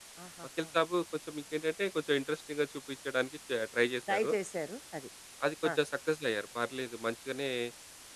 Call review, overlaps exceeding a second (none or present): none